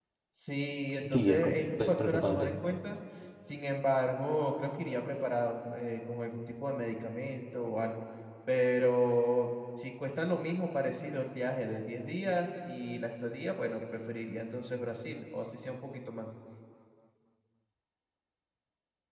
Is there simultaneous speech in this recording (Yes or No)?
Yes